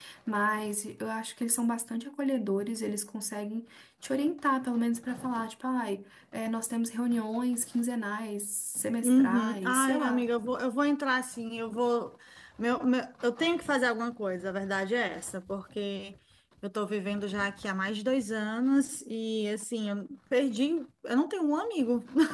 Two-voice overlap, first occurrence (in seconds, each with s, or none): 9.0 s